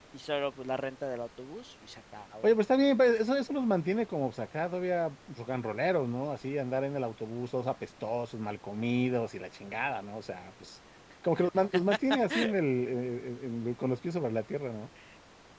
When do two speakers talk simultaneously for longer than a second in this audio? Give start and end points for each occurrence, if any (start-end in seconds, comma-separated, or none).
none